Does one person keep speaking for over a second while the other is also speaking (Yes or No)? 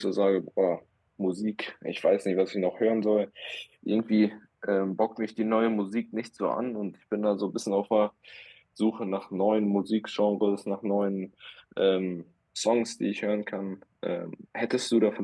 No